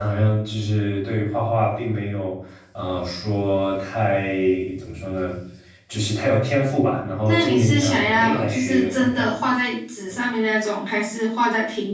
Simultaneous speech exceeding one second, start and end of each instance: 7.2-9.3

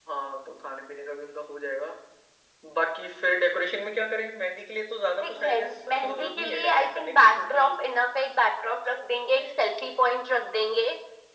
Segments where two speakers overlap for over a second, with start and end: 5.2-7.7

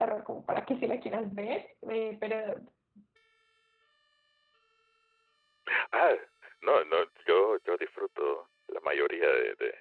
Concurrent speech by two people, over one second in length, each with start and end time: none

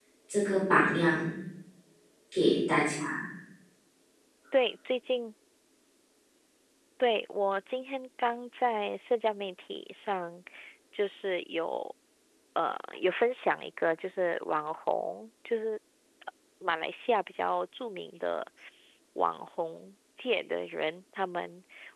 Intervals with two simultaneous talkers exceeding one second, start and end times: none

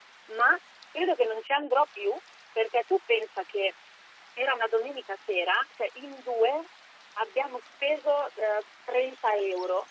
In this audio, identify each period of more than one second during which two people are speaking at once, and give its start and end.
none

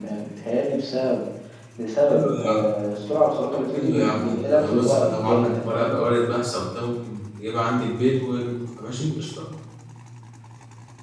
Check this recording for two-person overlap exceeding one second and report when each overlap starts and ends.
3.7-6.0

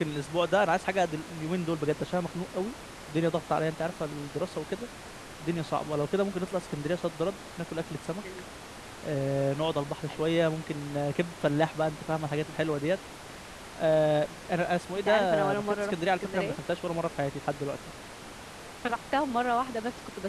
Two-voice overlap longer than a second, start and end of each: 15.0-16.6

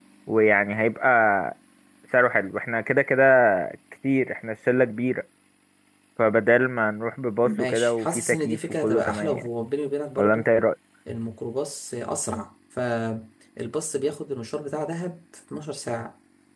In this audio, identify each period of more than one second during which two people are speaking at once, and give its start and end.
7.4-9.5

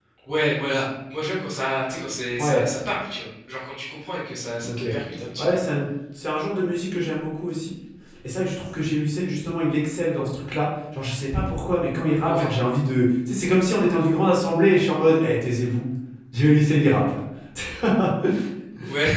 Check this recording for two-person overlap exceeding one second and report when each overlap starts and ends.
none

